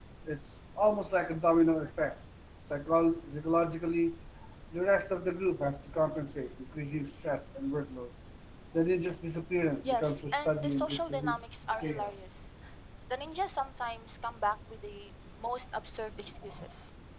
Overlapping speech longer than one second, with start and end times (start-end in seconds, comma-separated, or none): 9.8-11.4